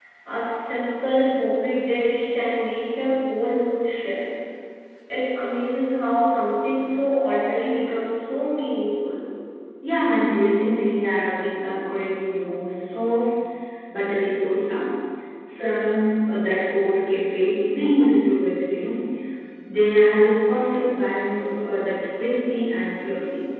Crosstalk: none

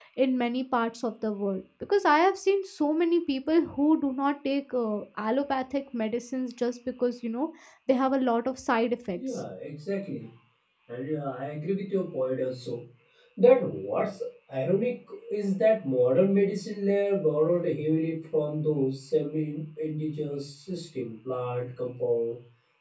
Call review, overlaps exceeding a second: none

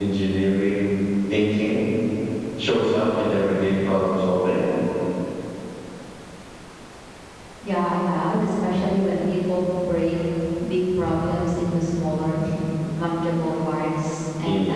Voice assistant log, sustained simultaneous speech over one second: none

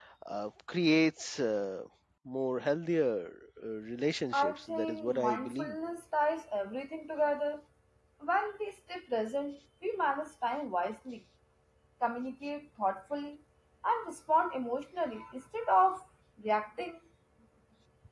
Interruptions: present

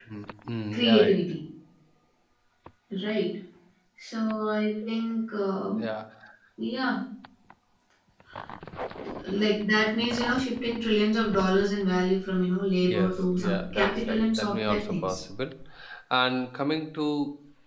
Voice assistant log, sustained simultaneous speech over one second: present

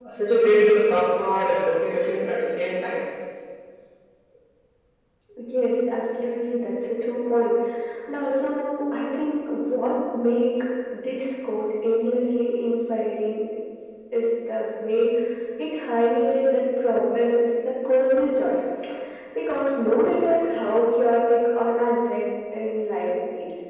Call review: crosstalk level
none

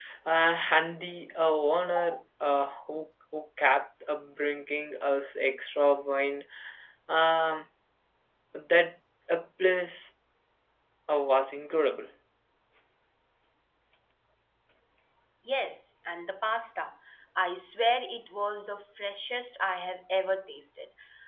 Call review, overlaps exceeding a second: none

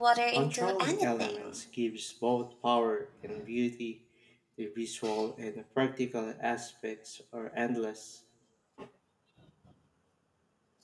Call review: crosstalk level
present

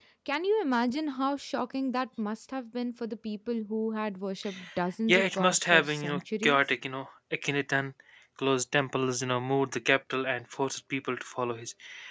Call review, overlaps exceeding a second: present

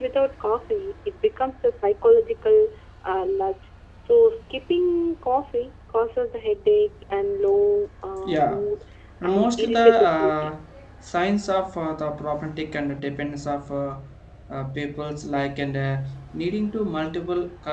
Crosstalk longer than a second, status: present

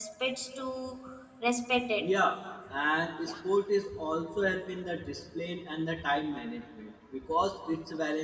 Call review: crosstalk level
none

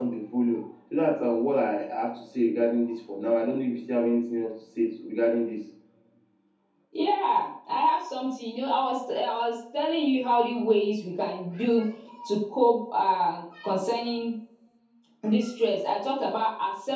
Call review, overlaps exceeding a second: none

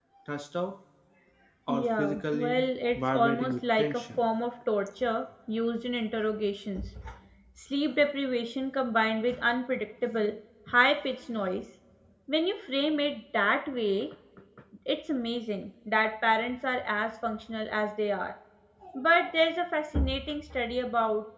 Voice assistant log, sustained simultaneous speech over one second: present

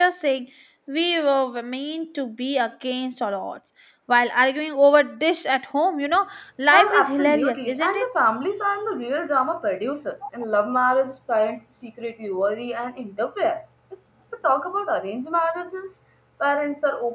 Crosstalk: present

